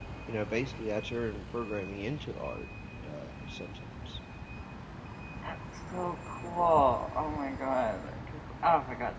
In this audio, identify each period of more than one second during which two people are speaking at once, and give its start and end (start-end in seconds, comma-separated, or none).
none